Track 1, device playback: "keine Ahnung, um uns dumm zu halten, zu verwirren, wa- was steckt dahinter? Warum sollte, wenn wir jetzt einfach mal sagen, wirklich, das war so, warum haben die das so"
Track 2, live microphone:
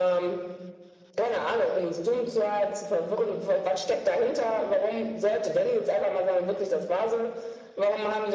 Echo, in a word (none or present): present